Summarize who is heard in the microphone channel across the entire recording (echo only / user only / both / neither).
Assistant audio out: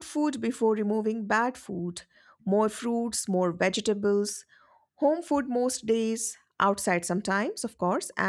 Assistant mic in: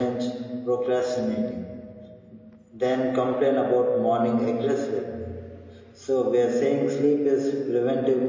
user only